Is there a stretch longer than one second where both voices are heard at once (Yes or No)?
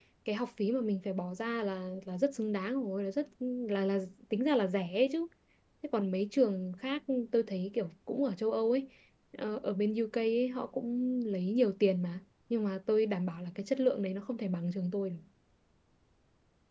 No